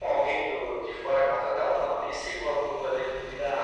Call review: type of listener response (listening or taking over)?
taking over